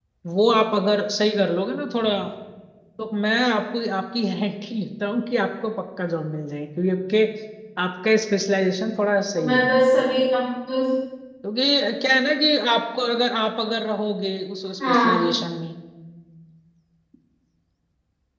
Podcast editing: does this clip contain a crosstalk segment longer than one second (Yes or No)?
No